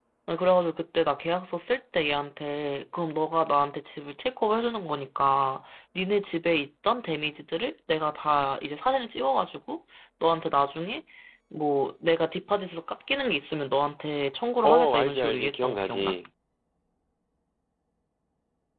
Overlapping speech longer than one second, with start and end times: 14.6-16.2

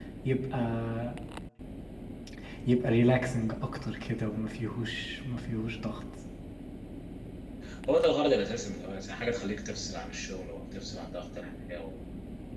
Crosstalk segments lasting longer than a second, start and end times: none

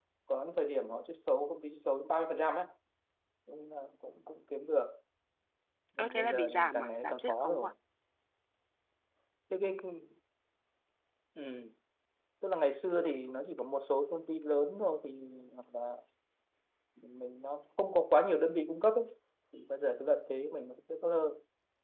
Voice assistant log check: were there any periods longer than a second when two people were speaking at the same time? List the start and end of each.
6.0-7.7

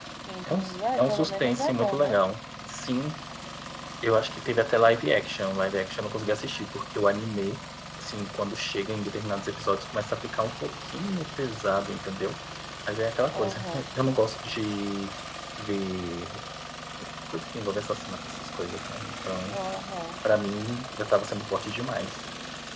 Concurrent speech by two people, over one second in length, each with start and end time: 0.9-2.2

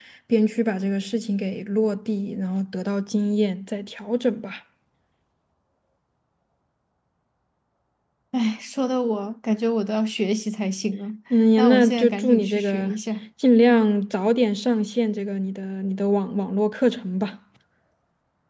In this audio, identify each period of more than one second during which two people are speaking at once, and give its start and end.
11.6-12.9

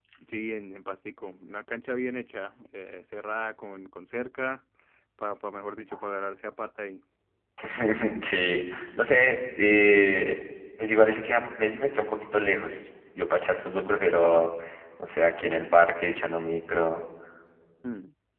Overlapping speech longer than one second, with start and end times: none

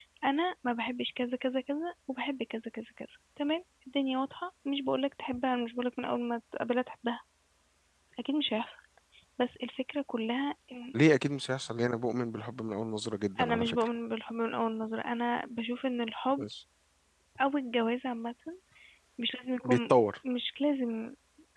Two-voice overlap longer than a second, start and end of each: none

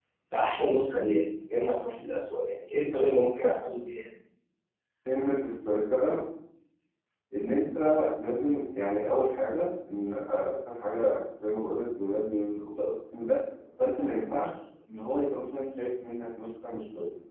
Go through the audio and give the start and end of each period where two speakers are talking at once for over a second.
none

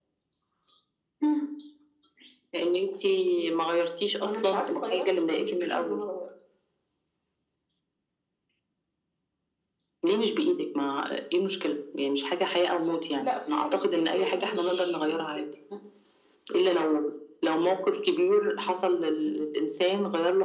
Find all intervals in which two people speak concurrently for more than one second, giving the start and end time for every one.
4.2-6.0, 13.2-15.4

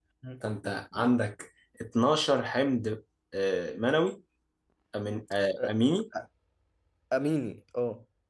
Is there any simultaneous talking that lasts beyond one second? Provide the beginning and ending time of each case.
none

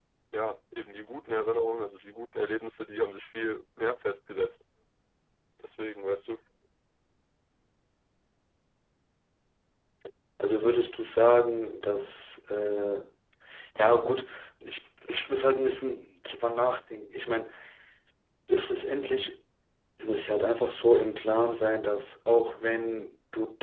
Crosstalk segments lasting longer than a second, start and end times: none

